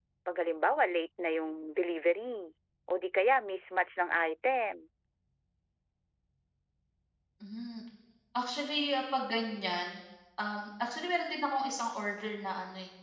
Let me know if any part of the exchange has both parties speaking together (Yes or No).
No